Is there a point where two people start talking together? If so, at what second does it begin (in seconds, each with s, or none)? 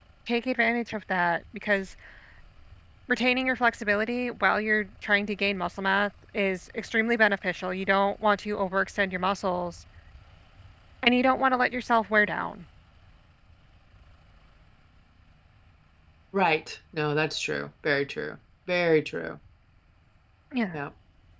none